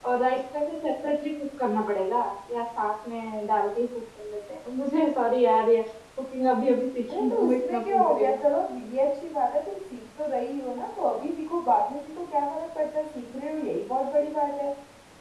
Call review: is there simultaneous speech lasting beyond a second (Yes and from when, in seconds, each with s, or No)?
Yes, from 7.1 s